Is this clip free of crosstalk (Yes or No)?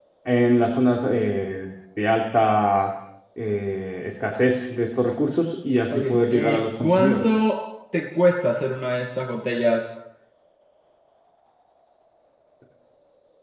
No